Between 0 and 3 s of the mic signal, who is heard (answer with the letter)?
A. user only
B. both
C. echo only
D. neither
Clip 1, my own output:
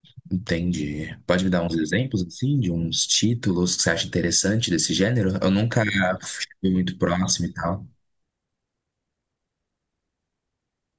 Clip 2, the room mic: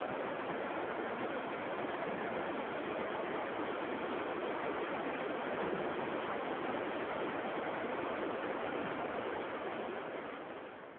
D